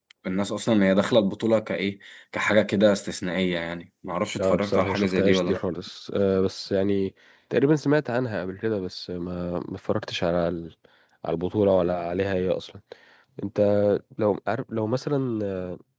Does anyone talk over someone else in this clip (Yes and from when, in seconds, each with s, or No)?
Yes, from 4.4 s